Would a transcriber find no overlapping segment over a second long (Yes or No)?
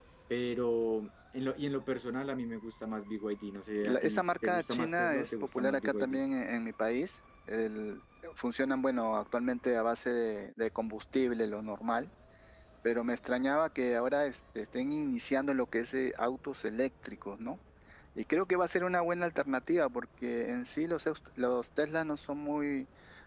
No